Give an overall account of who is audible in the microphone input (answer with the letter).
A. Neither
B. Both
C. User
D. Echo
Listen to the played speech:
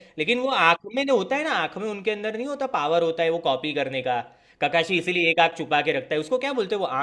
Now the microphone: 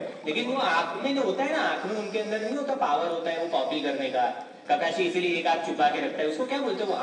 D